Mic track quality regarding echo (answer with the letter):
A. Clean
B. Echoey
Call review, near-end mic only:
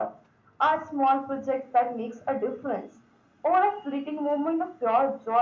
B